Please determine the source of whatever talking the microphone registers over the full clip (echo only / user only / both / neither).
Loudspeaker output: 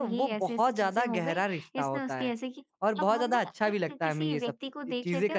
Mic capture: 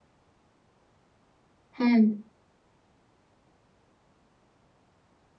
user only